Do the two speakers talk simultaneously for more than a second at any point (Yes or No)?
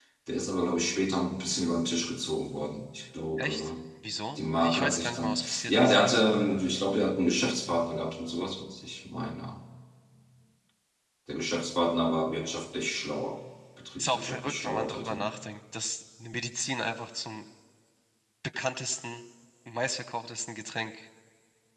Yes